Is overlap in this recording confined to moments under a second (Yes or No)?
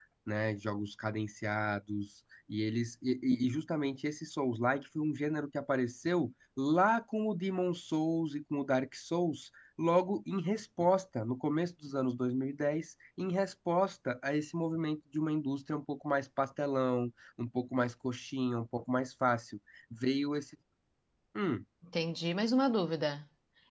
Yes